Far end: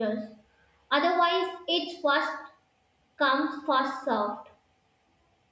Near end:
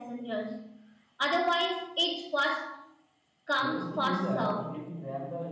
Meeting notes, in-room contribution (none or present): present